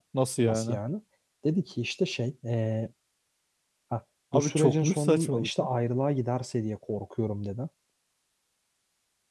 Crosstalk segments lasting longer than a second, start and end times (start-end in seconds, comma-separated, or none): 4.3-5.7